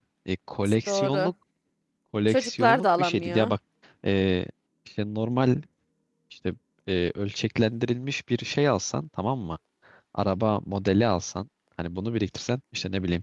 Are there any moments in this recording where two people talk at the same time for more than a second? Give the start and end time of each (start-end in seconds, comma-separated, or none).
2.3-3.5